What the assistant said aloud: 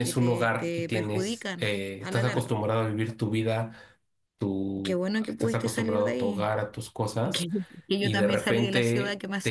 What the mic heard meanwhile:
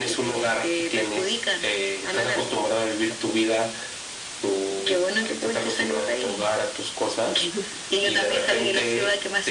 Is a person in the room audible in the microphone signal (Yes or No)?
No